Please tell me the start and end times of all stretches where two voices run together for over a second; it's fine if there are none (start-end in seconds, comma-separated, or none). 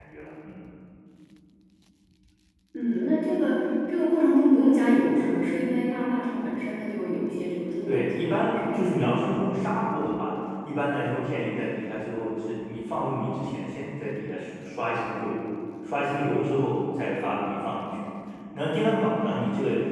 7.9-9.2